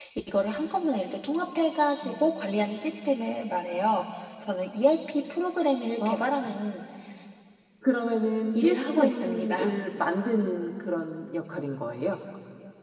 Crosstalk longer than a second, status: present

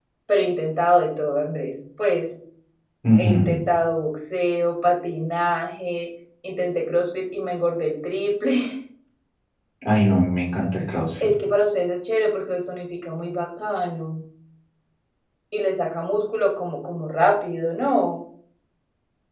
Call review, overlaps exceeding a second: none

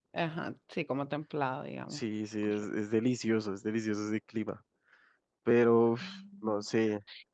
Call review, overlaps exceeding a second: none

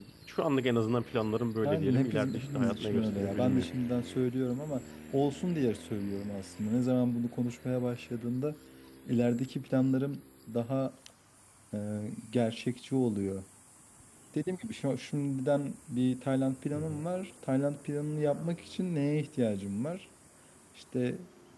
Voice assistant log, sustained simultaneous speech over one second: present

